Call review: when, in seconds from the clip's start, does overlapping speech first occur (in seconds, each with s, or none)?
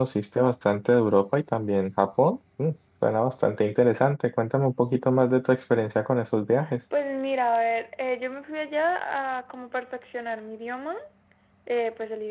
none